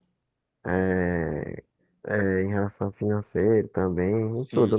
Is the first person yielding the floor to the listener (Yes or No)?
Yes